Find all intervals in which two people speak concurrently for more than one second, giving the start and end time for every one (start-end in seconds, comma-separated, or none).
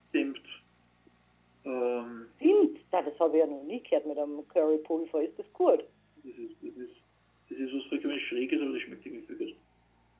none